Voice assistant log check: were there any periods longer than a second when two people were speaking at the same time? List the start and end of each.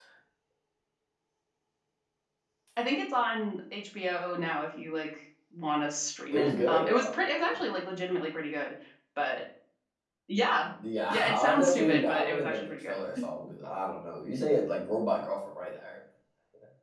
6.3-7.6, 11.1-13.0

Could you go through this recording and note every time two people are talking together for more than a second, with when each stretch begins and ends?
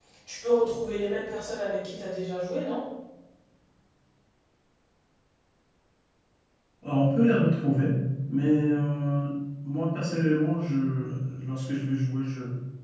none

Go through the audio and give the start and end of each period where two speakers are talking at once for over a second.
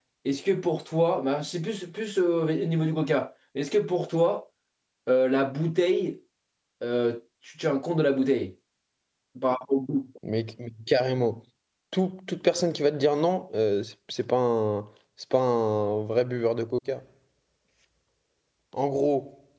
none

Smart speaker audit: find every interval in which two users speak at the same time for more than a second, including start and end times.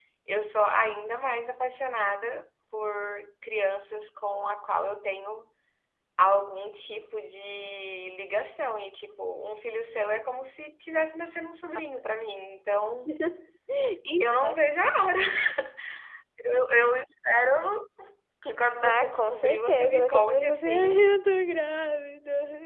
18.8-21.1

